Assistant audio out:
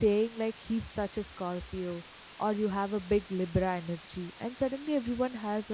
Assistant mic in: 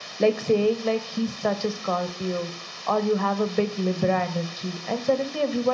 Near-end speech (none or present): none